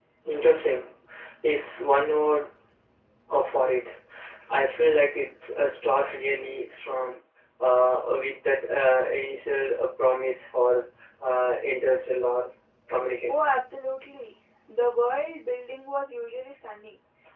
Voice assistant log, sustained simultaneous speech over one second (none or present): none